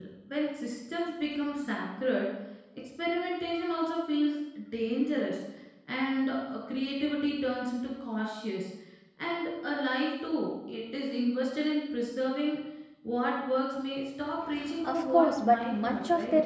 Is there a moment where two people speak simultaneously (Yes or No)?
Yes